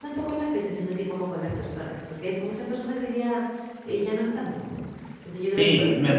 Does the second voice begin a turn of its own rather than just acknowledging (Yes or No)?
Yes